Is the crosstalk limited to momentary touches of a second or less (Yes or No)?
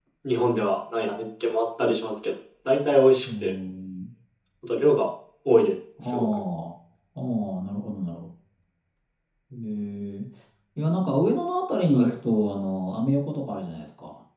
Yes